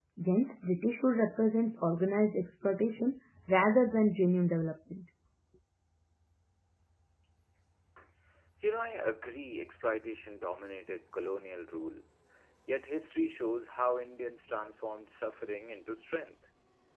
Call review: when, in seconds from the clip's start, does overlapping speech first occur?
none

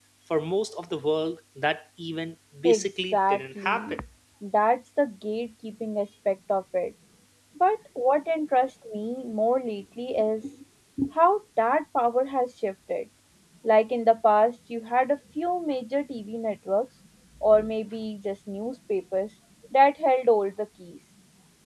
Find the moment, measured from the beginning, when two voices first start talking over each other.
2.6 s

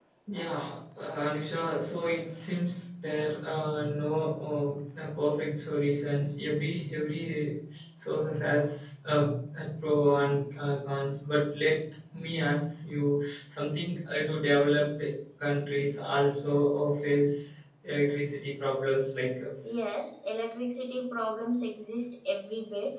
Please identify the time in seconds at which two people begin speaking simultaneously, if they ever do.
none

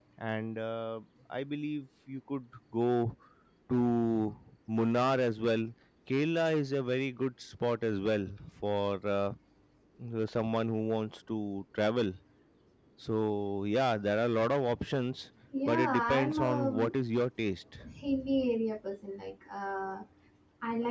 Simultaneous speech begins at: 15.7 s

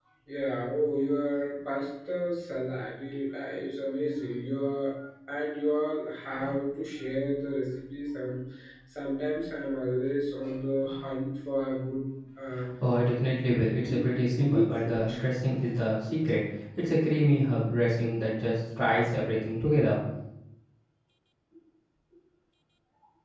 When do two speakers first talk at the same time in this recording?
13.8 s

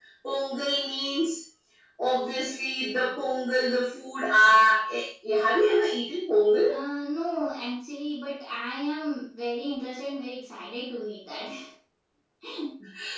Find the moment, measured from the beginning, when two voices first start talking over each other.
none

